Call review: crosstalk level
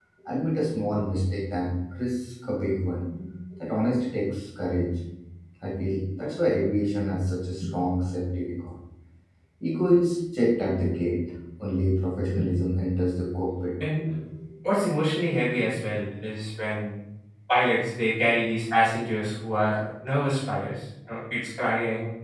none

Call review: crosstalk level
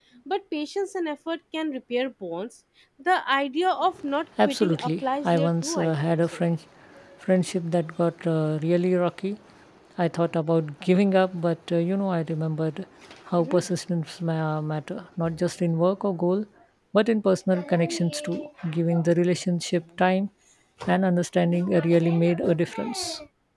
present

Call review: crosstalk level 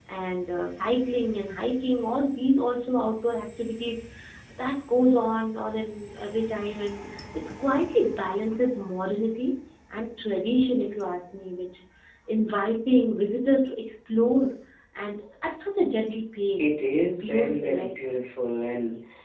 present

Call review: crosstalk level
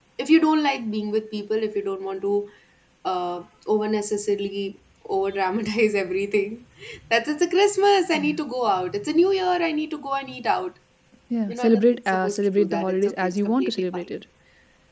present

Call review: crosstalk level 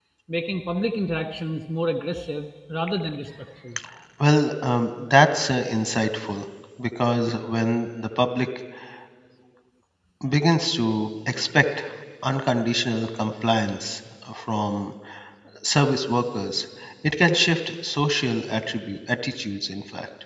none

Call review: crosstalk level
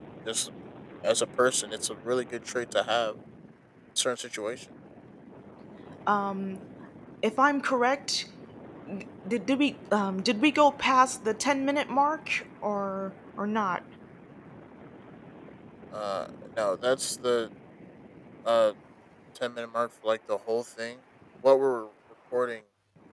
none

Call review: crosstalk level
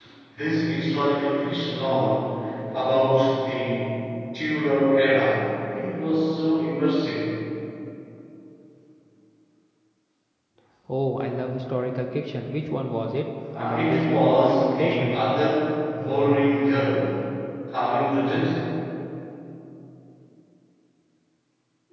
present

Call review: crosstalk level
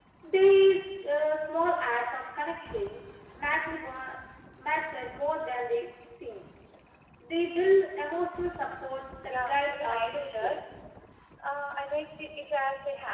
present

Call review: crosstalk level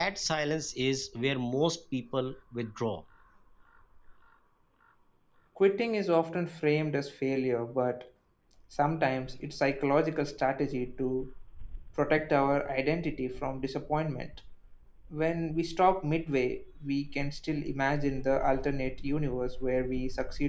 none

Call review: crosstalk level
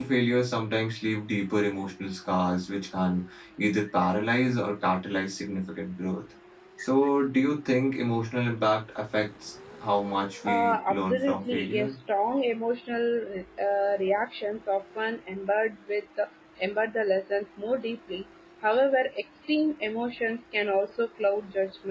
present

